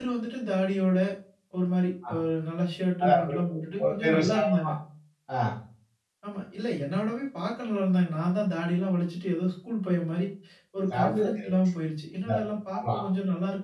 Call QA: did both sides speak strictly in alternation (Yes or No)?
No